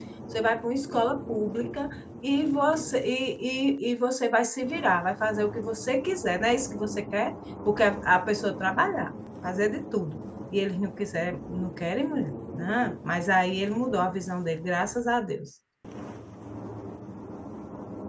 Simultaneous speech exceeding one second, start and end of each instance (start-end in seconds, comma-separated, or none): none